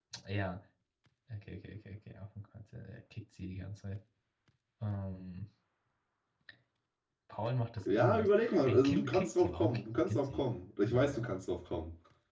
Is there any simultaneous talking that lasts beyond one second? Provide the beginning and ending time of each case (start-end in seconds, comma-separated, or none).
8.0-10.4